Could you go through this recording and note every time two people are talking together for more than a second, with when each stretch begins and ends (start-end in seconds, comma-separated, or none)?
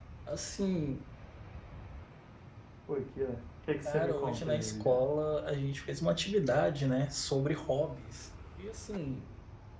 3.9-5.1